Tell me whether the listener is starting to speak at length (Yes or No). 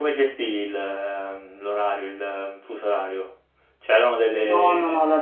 Yes